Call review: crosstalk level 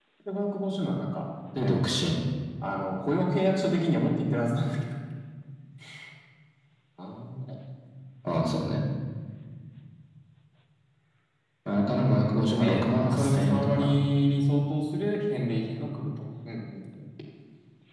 present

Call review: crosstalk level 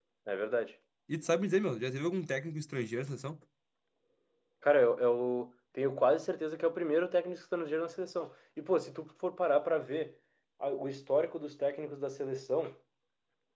none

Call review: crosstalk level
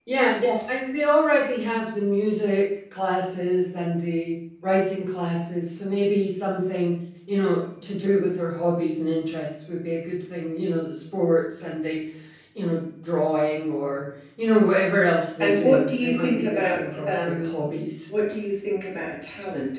present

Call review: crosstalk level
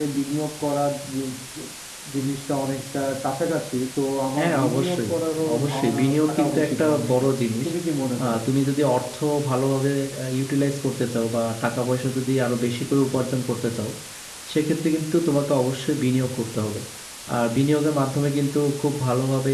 present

